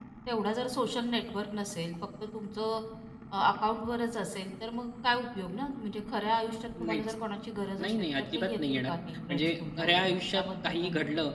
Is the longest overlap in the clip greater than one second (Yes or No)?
Yes